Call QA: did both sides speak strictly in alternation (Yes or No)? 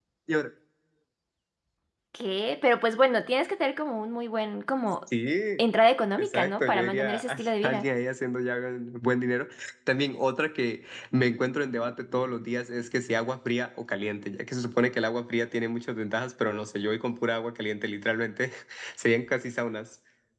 No